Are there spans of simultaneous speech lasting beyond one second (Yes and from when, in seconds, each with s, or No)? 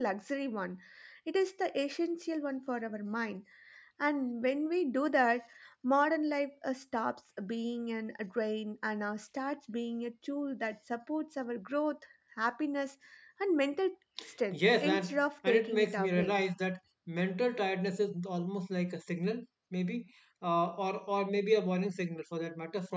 Yes, from 14.5 s